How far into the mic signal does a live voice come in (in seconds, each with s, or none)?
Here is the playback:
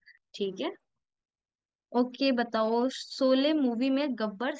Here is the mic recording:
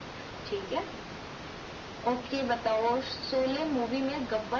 none